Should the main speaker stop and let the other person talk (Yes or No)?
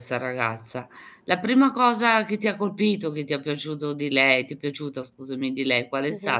Yes